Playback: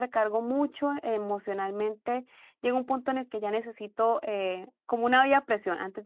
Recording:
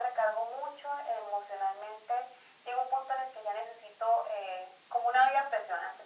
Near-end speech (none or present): none